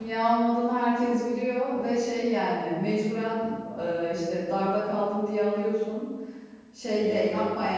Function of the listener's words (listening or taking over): listening